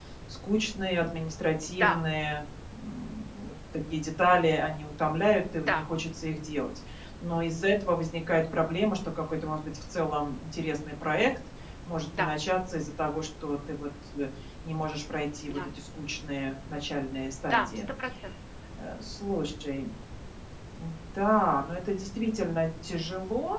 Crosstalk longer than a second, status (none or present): none